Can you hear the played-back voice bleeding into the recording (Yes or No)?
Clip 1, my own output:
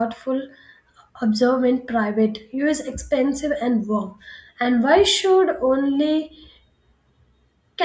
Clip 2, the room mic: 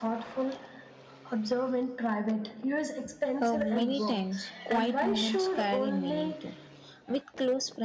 Yes